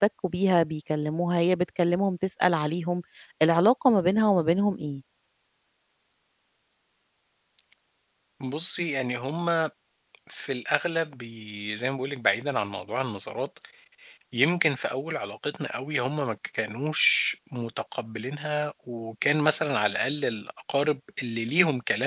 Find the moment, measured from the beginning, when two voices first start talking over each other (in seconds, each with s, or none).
none